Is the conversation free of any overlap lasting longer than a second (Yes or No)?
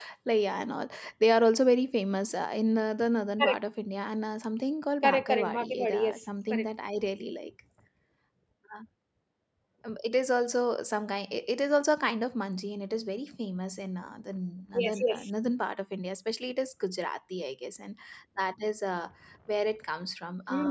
No